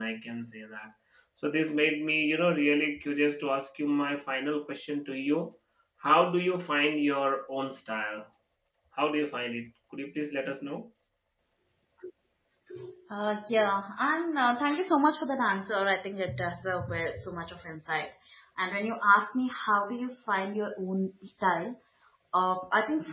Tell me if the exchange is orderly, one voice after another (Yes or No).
Yes